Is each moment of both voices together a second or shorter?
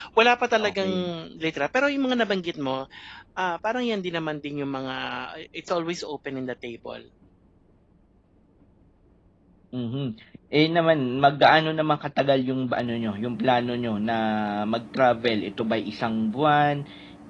Yes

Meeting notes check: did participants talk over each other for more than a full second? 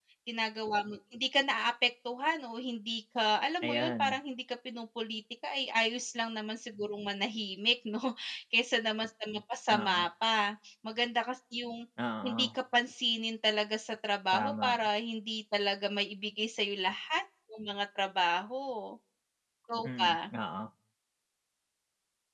No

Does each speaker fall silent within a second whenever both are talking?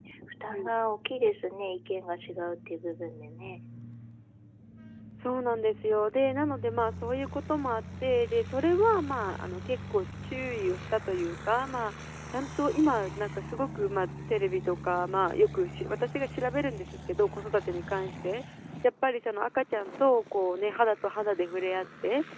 Yes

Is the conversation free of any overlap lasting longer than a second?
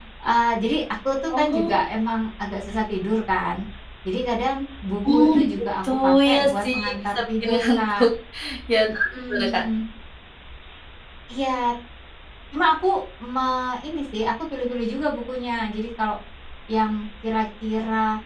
No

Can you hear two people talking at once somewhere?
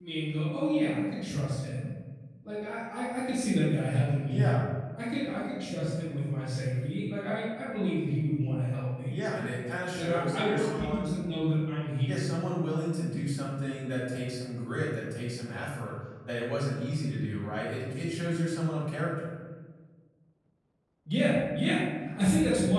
Yes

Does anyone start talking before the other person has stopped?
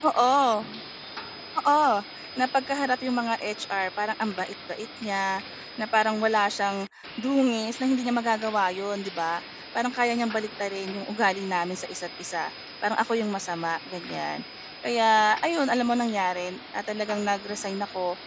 No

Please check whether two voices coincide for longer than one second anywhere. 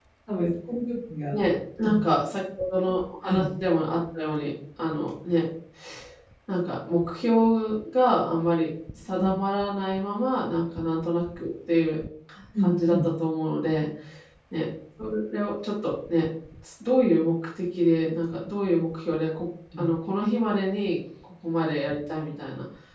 No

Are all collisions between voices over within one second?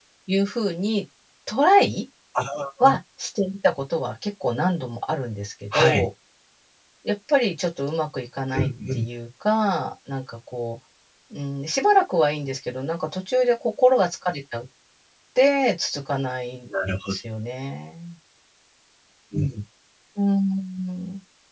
Yes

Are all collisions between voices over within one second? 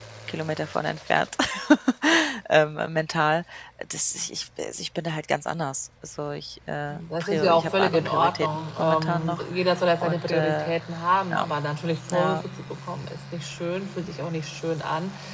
No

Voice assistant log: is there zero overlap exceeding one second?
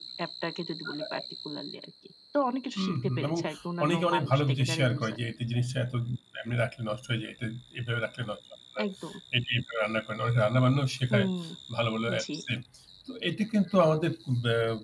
No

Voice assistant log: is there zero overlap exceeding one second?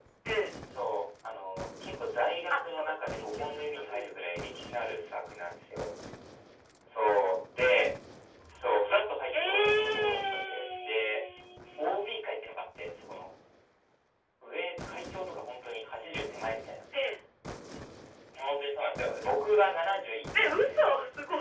No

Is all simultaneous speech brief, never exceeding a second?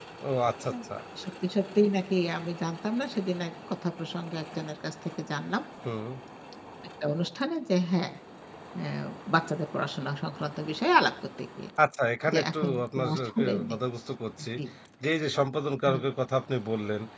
No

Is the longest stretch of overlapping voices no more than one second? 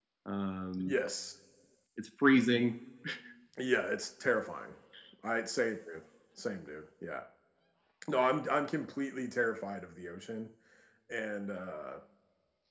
Yes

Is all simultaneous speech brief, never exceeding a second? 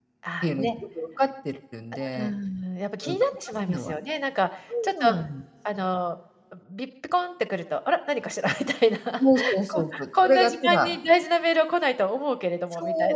No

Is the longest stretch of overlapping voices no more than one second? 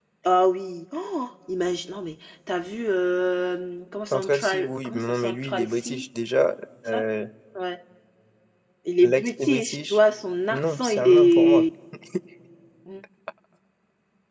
No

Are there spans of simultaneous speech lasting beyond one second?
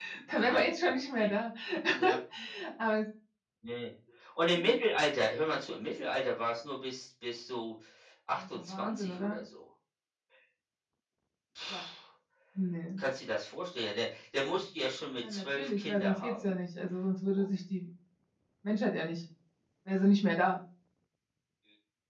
Yes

